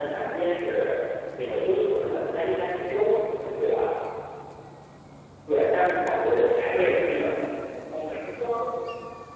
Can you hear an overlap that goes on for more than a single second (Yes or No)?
No